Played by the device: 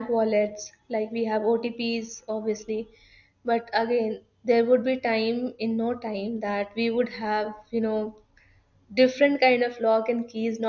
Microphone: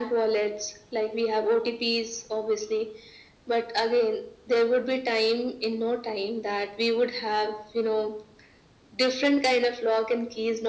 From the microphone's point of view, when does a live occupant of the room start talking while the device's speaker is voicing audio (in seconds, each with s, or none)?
none